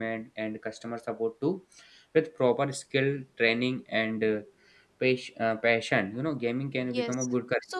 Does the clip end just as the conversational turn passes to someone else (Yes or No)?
Yes